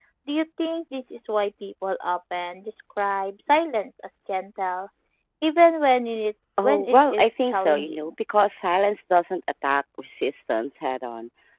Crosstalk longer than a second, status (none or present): present